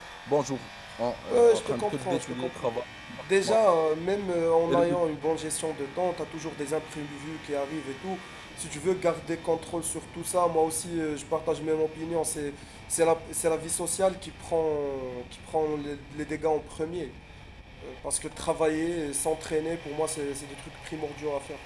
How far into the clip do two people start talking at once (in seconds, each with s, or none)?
1.3 s